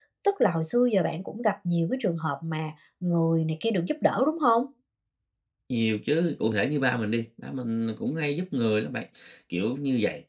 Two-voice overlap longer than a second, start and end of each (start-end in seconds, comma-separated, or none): none